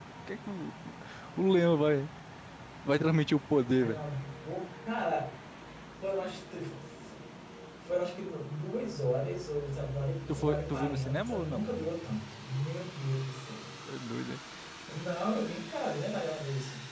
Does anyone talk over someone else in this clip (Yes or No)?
Yes